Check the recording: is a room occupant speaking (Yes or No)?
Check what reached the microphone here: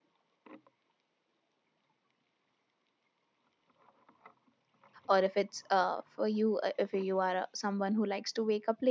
Yes